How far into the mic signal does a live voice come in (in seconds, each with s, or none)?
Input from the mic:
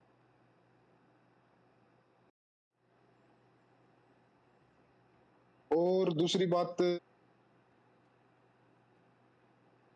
5.8 s